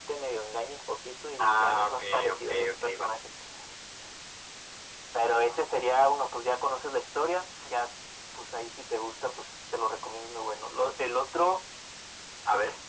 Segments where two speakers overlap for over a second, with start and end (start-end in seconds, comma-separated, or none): 1.4-3.1